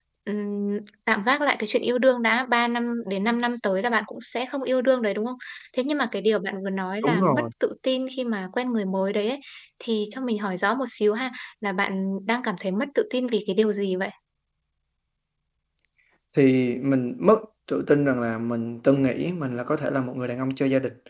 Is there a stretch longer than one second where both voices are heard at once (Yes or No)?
No